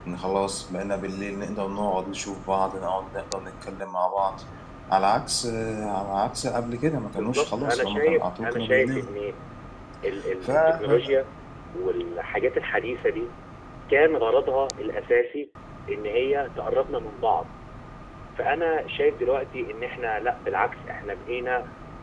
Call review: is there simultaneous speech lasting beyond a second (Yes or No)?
Yes